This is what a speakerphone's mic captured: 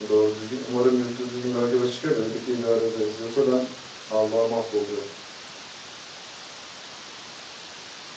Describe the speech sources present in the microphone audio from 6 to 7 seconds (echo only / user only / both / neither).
neither